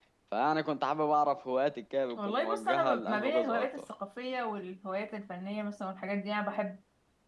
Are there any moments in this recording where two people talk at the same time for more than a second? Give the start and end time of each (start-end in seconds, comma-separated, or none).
2.2-3.9